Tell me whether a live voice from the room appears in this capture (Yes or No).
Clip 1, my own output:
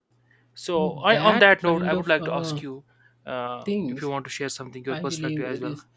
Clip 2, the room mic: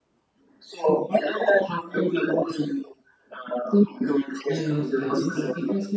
Yes